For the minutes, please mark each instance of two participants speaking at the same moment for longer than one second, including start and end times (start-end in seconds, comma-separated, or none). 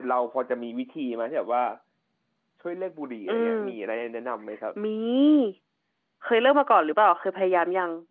none